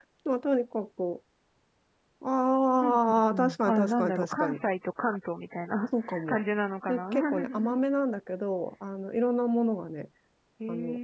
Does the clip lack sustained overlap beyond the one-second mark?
No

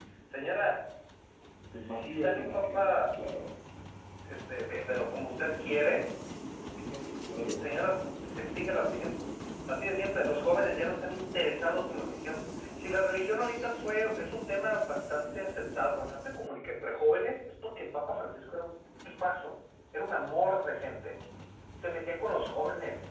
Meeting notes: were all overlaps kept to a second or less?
No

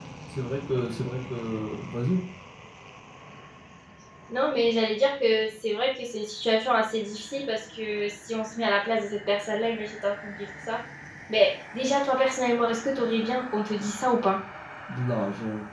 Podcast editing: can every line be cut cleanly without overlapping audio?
Yes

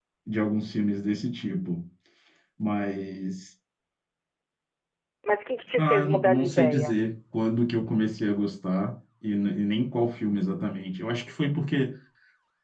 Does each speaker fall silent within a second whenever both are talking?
No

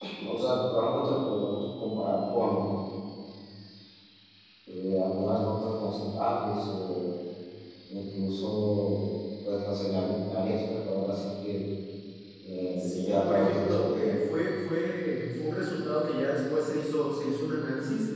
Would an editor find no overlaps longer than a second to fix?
No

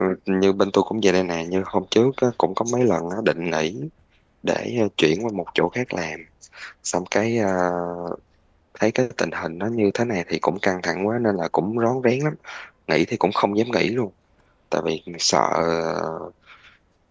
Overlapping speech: No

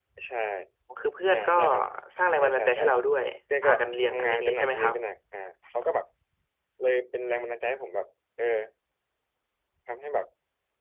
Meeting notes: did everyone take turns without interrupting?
No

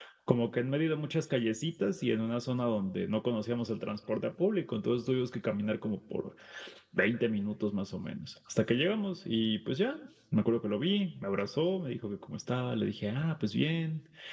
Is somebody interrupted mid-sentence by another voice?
No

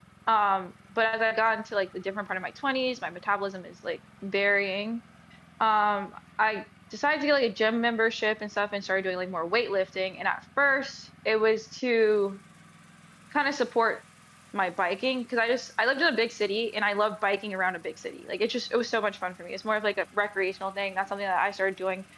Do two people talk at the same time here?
No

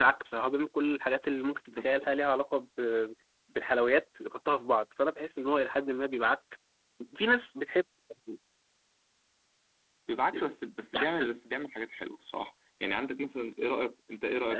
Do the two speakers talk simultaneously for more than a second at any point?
No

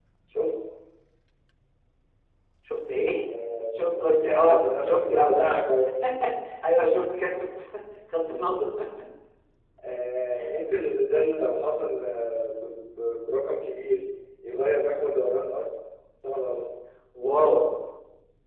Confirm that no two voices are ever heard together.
No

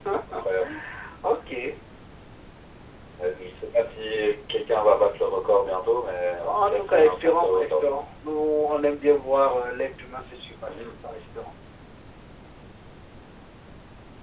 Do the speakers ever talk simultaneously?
Yes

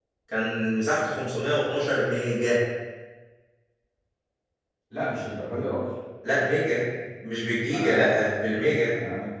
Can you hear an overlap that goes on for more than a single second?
Yes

